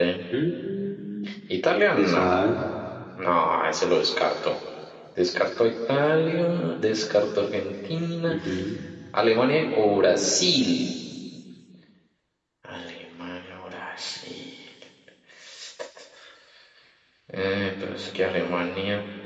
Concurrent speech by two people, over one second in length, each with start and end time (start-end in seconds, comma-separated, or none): none